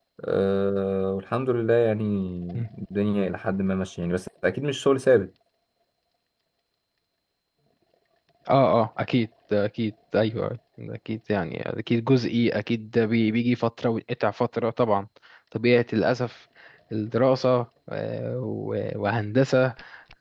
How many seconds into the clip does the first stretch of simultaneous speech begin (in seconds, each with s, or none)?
none